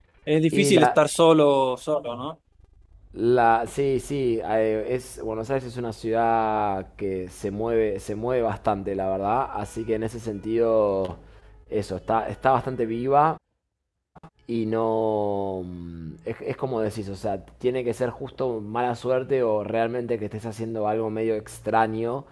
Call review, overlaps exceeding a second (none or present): none